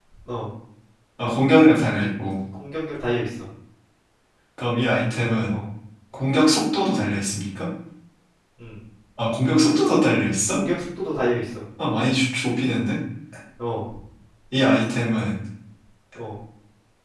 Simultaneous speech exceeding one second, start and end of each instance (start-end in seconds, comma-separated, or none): none